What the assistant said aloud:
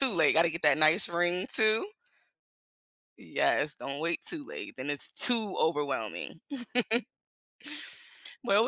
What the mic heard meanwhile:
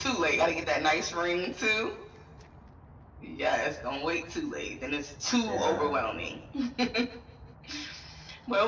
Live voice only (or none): yeah.